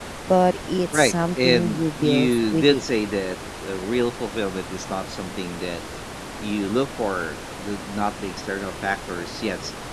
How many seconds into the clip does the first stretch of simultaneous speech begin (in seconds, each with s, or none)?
0.9 s